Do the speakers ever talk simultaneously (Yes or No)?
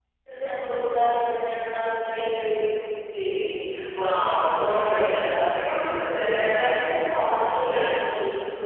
Yes